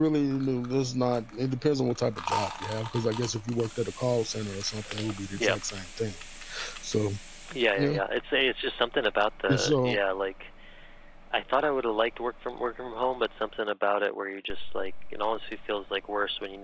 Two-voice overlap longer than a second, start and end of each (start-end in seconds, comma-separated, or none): none